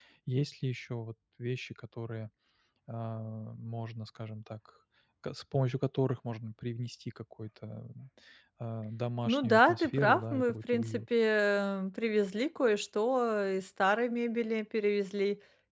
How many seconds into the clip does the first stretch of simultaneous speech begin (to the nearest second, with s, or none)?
9 s